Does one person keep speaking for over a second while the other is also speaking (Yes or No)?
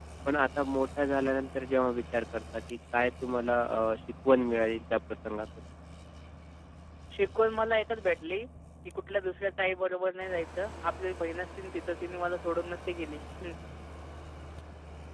No